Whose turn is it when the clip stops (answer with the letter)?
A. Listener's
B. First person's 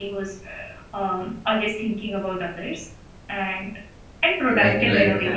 A